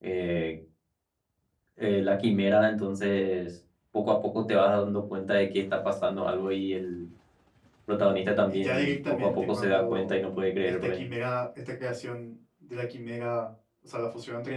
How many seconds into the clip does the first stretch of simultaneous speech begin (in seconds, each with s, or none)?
8.5 s